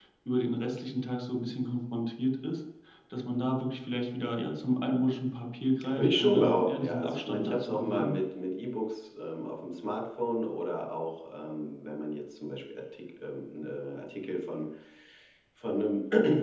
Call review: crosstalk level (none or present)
present